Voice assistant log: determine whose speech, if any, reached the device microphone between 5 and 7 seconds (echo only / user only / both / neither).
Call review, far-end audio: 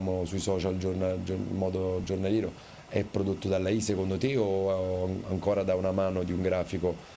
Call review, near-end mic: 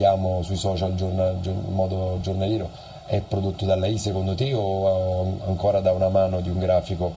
echo only